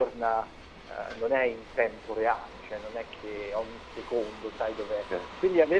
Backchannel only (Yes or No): Yes